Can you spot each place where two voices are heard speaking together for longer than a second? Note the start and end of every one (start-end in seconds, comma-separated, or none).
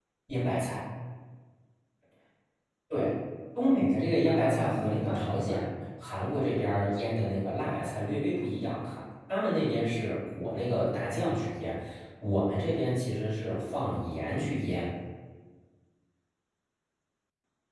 4.2-5.7